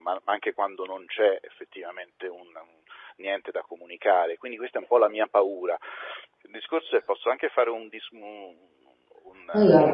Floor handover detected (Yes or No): No